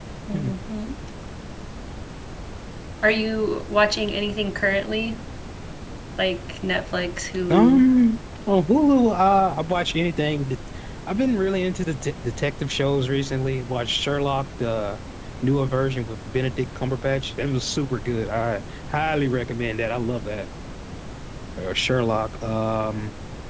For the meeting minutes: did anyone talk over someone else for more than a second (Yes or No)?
No